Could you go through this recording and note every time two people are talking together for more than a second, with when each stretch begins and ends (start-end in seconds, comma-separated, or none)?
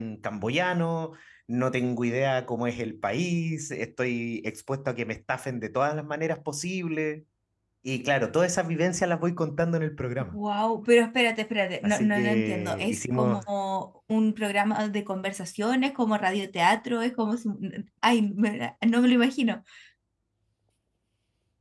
11.8-13.4